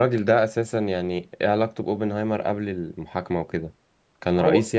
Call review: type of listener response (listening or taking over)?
taking over